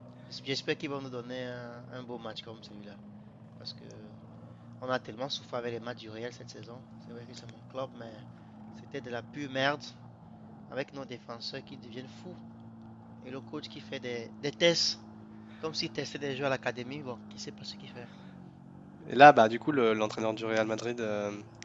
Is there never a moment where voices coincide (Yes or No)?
Yes